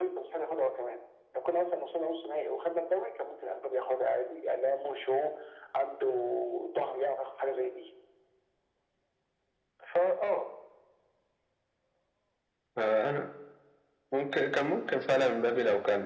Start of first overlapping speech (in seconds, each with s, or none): none